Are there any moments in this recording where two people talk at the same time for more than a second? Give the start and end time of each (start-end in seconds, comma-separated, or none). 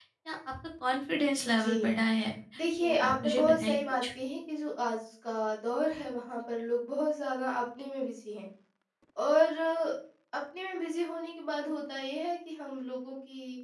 2.8-4.0